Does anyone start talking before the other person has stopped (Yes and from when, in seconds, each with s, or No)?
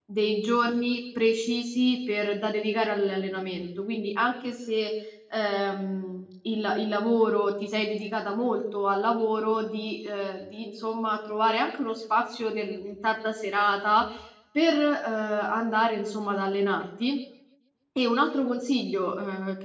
No